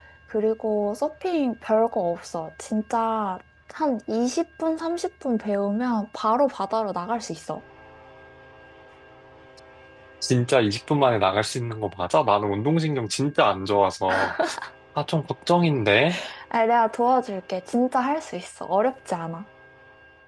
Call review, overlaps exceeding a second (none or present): none